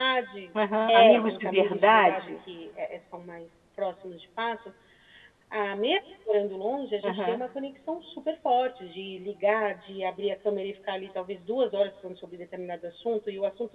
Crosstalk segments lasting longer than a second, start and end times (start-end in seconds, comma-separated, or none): 0.9-2.3